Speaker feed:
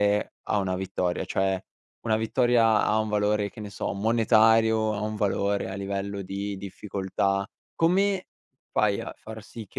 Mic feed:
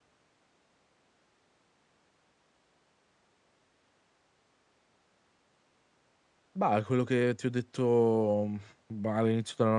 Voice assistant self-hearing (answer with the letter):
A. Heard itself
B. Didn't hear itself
B